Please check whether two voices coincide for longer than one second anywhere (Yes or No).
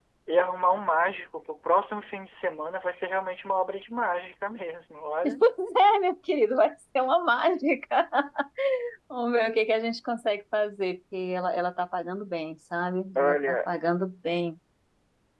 No